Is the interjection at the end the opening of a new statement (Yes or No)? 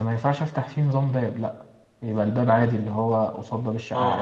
Yes